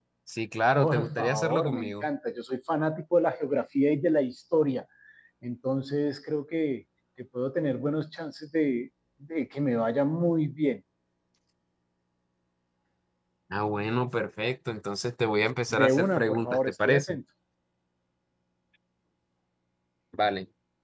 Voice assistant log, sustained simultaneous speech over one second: present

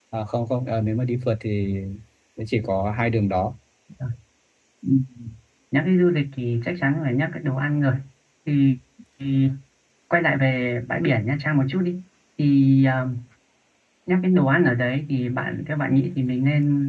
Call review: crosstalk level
none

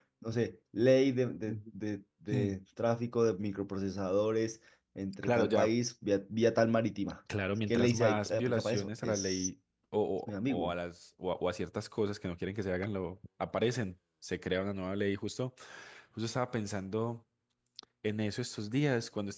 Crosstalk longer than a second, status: present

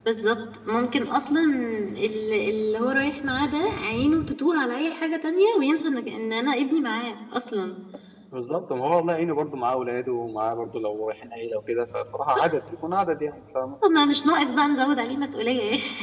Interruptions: none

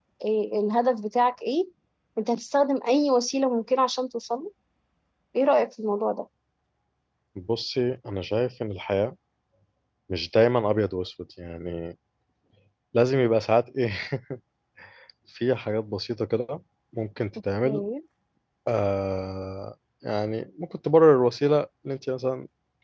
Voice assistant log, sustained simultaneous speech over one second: none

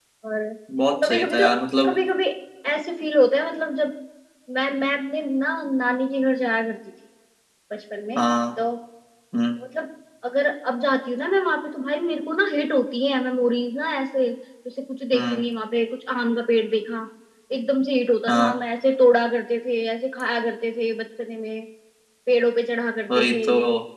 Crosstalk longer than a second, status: none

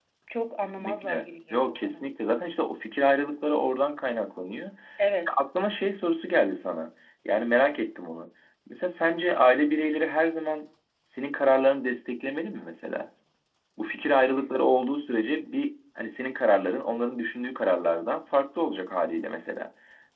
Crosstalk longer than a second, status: present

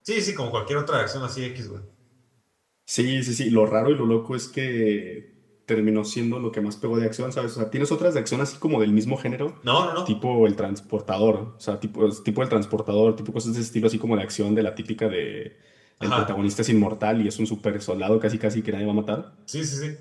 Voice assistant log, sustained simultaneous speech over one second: none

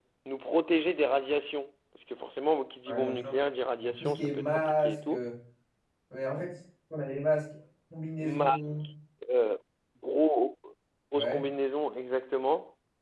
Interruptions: present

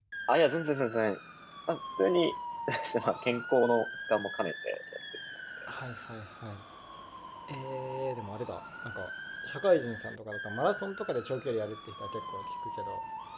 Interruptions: none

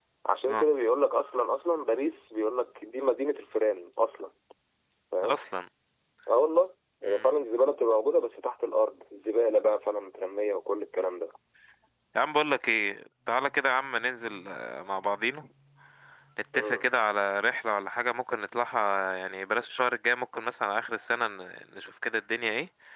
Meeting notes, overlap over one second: none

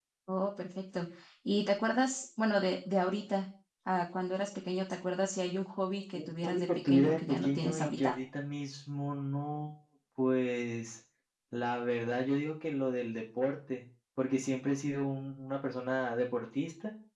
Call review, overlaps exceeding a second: present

